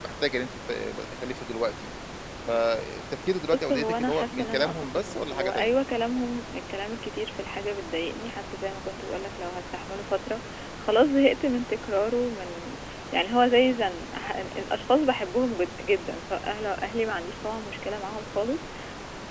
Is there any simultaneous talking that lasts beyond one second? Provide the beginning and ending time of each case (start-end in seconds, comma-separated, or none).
3.5-5.7